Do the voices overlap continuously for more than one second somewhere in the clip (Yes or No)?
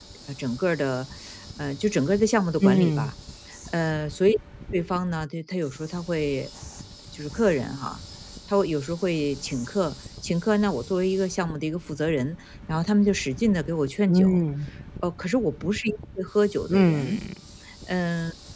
No